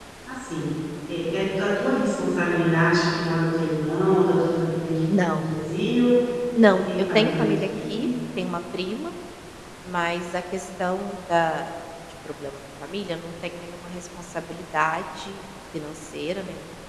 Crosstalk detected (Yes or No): Yes